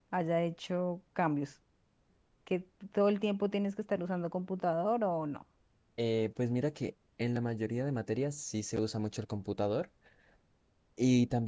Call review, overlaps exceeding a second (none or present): none